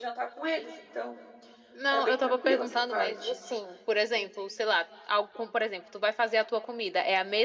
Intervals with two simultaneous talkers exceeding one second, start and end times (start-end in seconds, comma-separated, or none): 1.9-3.3